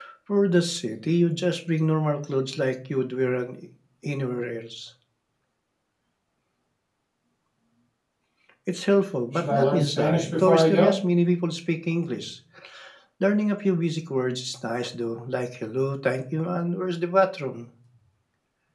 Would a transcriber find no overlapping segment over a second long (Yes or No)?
No